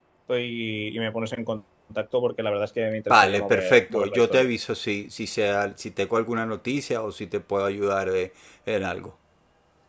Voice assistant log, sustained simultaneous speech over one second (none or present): present